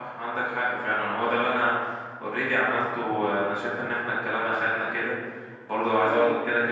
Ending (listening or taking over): listening